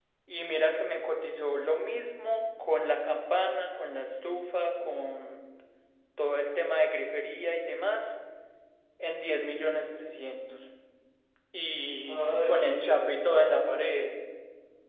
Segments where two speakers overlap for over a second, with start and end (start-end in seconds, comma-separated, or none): 12.0-13.9